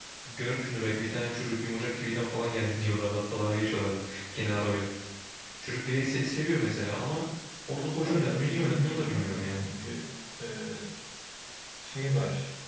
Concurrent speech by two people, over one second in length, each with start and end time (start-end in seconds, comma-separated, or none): 8.0-9.6